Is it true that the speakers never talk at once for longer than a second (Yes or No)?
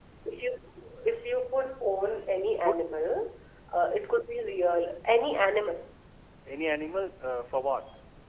Yes